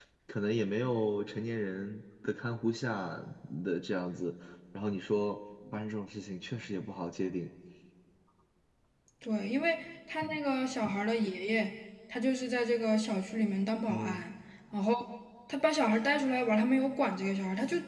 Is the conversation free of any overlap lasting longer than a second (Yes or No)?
Yes